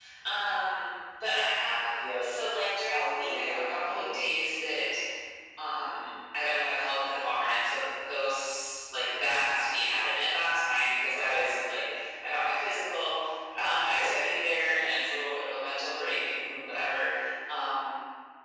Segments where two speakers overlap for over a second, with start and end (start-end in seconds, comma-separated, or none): 2.9-4.2